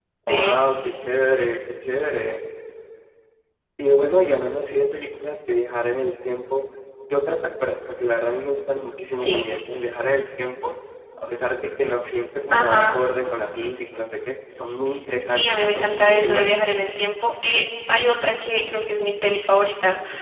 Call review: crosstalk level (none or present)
present